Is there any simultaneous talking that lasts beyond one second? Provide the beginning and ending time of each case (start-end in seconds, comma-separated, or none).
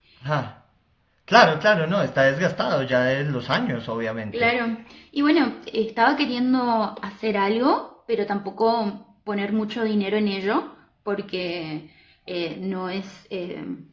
none